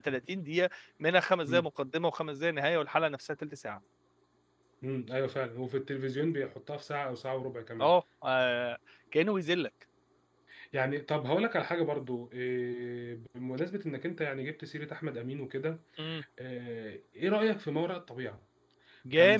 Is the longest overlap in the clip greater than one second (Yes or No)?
No